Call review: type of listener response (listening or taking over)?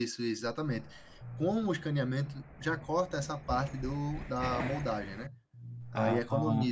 listening